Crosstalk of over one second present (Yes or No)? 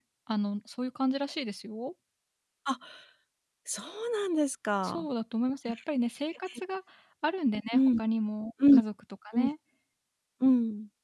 No